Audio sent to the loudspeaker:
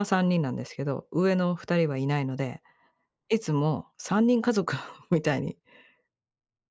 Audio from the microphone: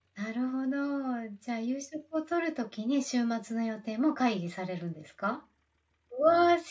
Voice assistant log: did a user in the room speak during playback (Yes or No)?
Yes